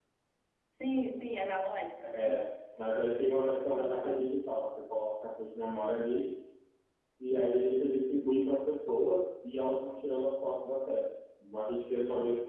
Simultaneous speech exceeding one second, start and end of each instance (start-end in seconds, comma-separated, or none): none